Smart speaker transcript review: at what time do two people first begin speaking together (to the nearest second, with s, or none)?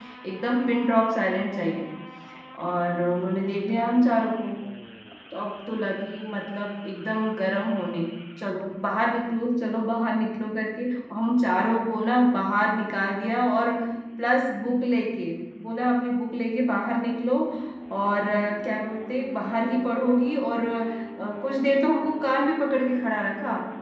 none